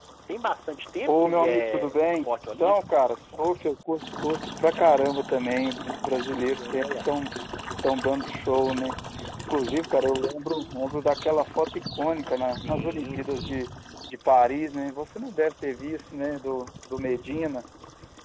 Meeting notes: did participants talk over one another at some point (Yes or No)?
Yes